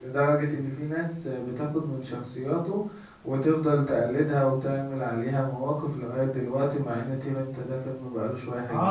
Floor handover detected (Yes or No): Yes